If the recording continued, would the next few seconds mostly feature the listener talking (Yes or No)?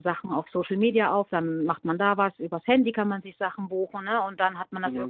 No